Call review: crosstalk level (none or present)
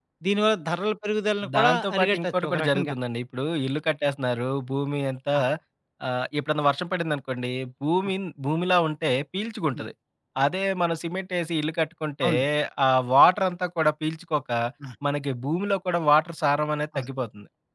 present